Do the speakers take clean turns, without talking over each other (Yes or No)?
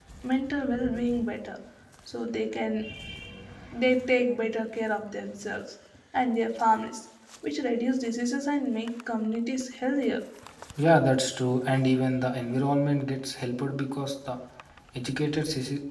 Yes